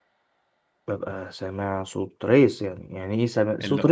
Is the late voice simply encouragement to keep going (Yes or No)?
No